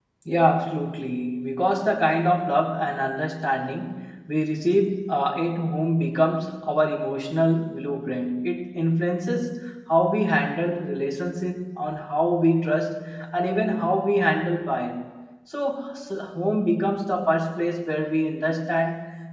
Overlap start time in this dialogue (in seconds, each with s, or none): none